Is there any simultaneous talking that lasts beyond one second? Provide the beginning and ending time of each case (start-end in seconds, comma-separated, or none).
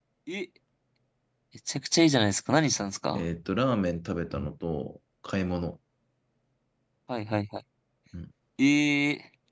none